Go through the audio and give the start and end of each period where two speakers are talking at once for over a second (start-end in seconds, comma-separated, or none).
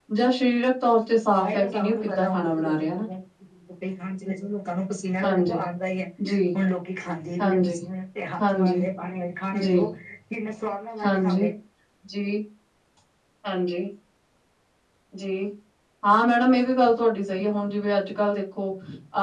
1.4-2.9